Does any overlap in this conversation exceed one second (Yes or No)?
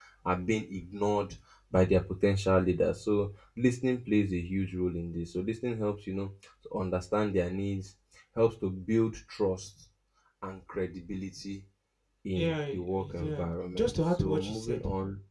Yes